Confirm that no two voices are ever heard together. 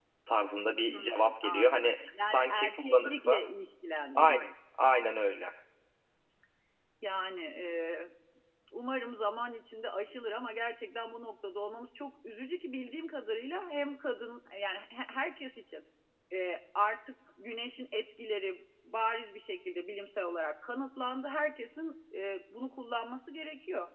No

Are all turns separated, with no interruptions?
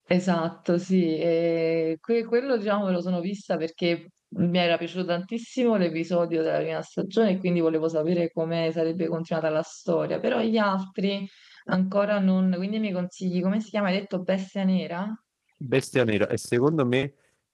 Yes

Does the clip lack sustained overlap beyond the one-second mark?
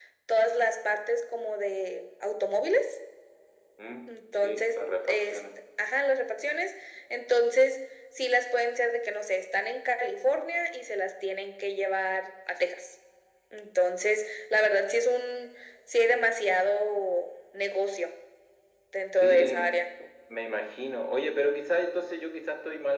No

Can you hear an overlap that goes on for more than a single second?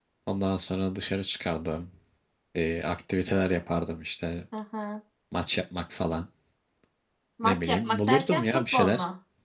Yes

